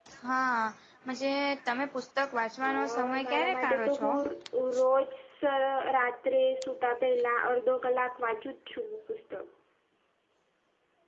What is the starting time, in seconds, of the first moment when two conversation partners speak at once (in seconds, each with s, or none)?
2.6 s